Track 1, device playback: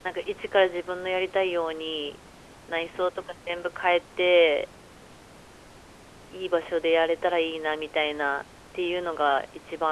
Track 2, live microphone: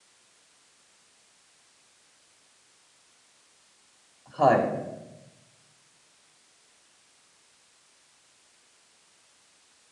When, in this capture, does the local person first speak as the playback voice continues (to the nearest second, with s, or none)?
4 s